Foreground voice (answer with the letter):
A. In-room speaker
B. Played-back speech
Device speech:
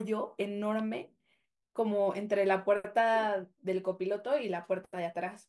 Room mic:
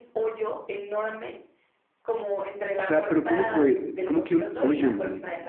A